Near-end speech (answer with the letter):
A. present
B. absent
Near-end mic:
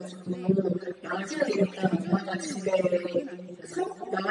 A